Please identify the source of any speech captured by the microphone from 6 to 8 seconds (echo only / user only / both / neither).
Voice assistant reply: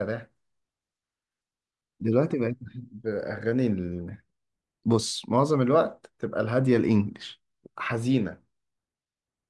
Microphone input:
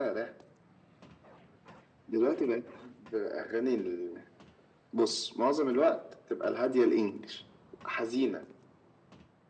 echo only